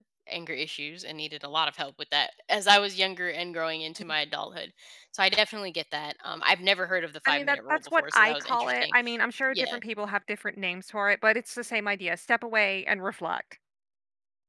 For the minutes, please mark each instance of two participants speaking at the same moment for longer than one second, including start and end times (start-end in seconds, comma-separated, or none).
7.3-8.9